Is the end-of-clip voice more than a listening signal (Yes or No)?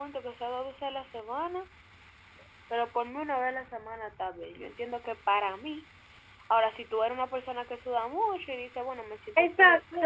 Yes